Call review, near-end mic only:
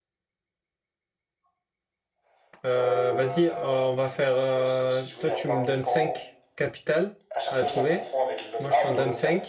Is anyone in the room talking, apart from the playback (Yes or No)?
Yes